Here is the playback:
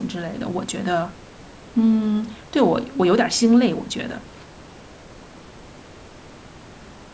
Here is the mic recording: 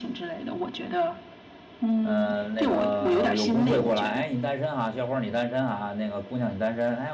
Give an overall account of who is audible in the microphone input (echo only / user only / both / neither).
both